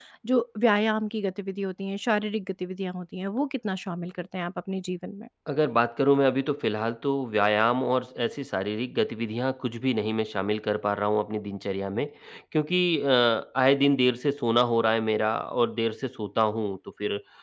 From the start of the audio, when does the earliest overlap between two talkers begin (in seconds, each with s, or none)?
none